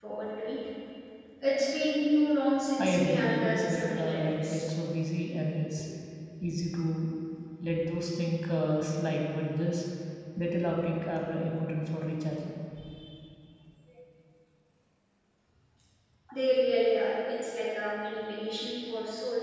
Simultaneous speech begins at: 2.8 s

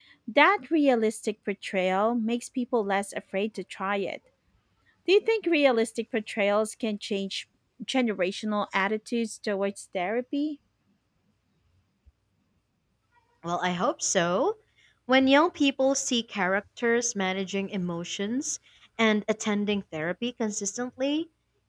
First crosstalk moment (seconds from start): none

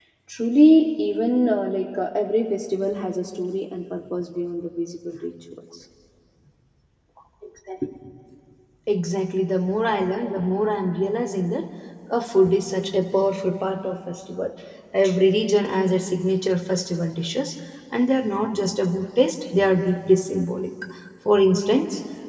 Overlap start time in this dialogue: none

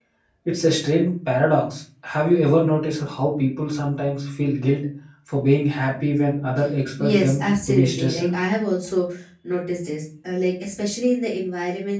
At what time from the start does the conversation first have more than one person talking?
7.0 s

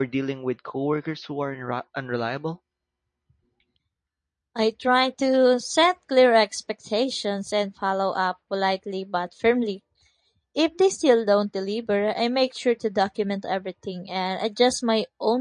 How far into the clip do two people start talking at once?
none

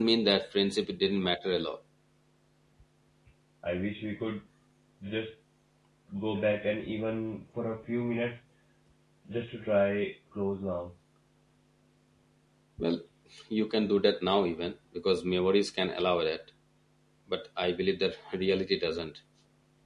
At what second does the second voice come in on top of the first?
none

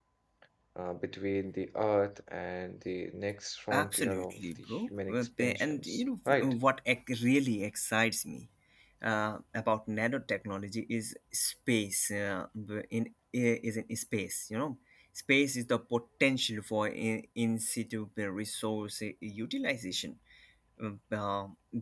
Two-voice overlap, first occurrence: 3.7 s

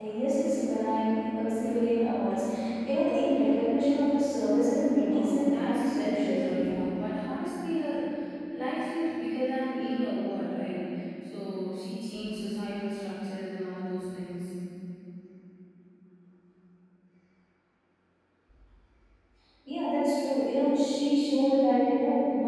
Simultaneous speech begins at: 5.1 s

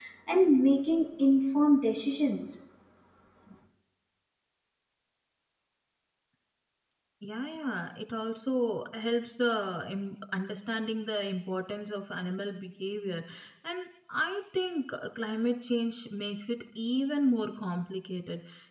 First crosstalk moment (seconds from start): none

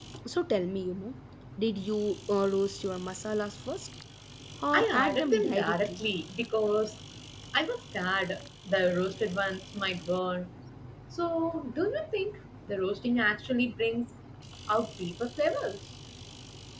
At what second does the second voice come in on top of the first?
4.7 s

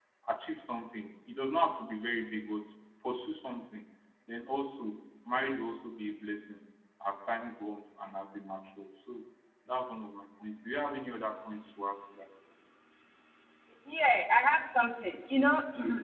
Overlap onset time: none

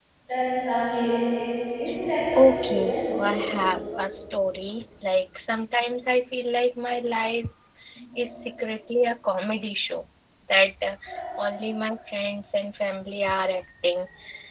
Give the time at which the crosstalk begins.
2.4 s

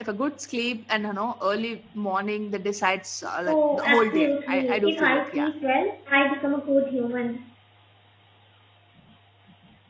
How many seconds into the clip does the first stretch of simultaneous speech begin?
3.5 s

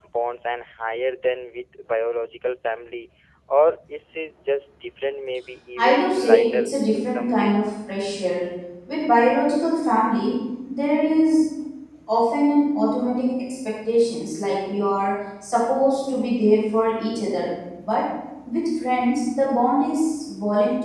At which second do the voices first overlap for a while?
5.8 s

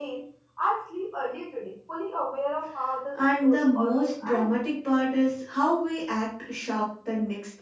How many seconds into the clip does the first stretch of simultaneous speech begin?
3.1 s

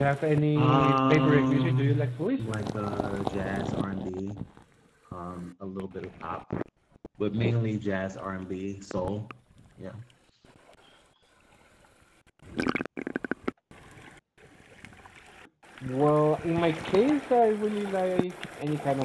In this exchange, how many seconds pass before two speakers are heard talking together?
0.6 s

